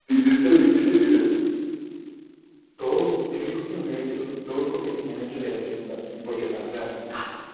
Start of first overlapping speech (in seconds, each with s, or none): none